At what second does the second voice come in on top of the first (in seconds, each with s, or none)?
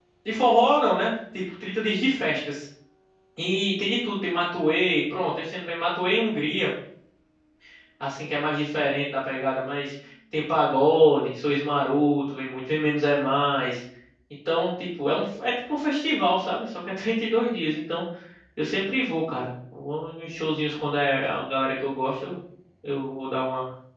none